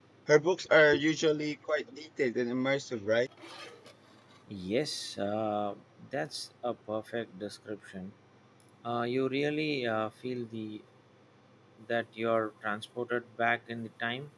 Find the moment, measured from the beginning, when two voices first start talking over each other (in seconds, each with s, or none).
none